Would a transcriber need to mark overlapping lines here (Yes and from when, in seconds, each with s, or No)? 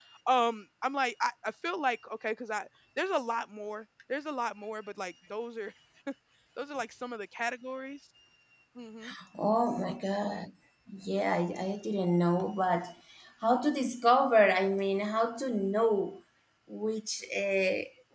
No